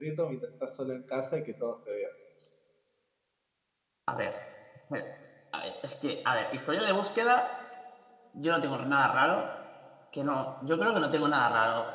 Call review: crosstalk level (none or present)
none